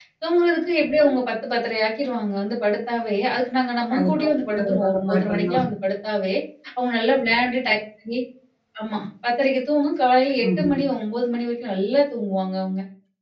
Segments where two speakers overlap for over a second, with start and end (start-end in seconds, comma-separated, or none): 3.9-5.6